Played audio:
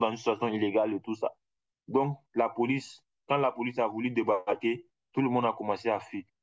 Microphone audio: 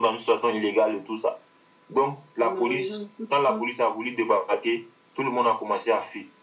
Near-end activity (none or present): present